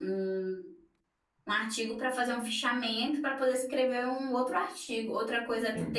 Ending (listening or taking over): listening